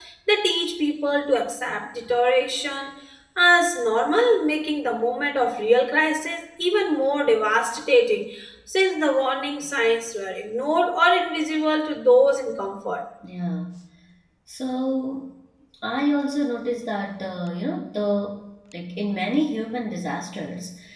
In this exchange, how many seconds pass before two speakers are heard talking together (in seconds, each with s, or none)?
none